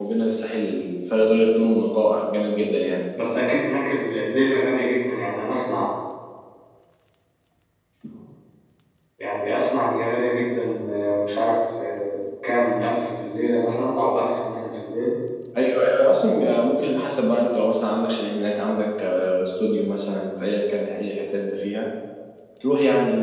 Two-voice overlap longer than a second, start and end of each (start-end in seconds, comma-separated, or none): none